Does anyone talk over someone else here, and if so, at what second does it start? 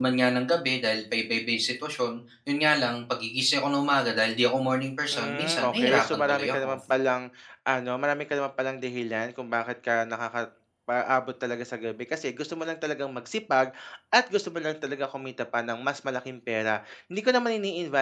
5.1 s

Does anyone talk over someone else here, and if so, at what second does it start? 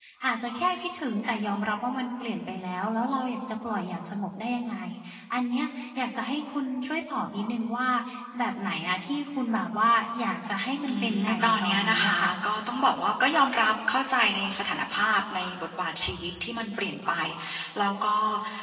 10.8 s

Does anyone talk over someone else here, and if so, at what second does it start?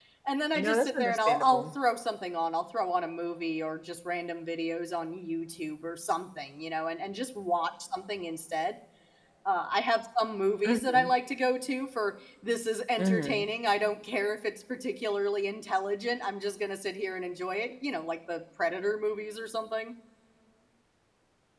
0.5 s

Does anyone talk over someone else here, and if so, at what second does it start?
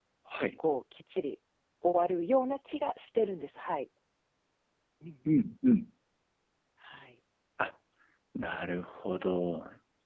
none

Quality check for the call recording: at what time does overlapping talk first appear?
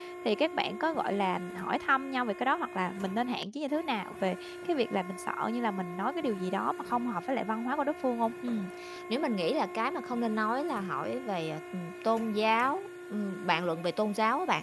none

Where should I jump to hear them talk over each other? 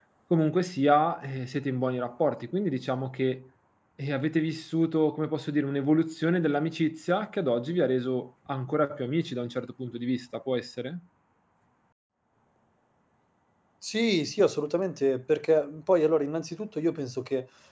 none

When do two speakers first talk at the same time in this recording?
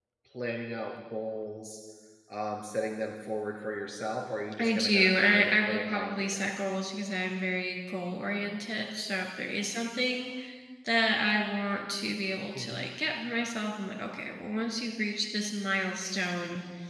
4.6 s

